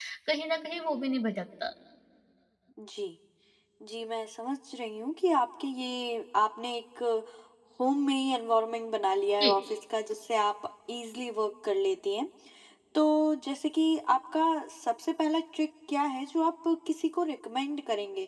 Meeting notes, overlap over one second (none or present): none